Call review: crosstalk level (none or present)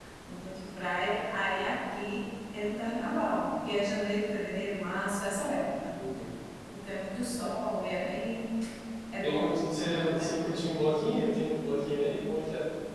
present